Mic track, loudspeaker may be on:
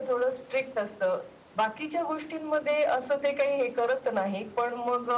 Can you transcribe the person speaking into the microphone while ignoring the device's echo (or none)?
none